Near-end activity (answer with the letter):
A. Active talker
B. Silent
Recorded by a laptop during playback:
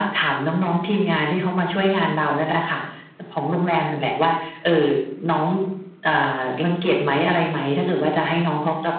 B